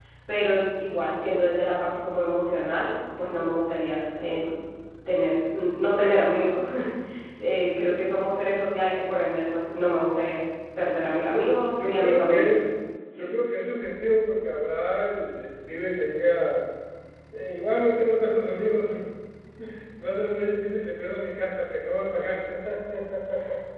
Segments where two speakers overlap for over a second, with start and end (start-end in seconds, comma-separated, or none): 11.3-12.5